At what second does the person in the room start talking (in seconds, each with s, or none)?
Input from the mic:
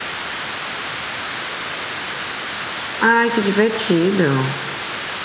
3.0 s